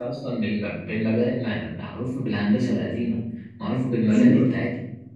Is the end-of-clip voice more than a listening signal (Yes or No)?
No